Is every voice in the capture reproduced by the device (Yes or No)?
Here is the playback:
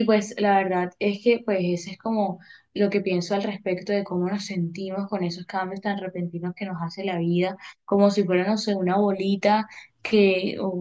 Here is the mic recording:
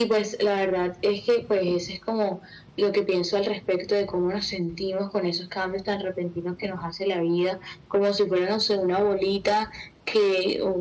Yes